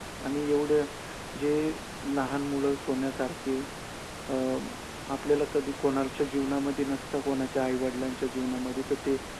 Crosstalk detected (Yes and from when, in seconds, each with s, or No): No